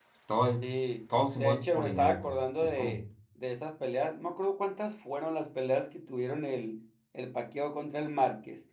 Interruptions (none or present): present